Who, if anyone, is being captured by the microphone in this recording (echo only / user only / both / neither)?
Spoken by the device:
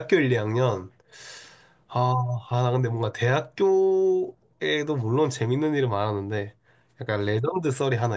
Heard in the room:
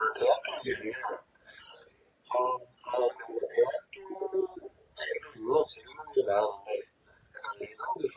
echo only